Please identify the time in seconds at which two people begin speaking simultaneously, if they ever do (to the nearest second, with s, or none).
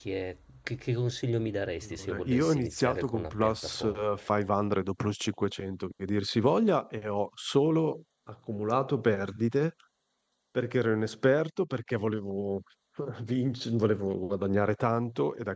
2 s